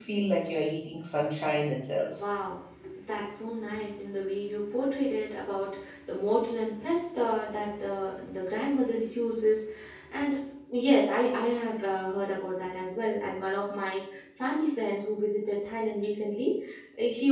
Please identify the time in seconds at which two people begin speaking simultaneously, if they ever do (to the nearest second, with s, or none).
none